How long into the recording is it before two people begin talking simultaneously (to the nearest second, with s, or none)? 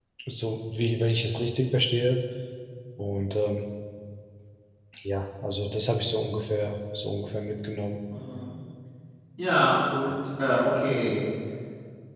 none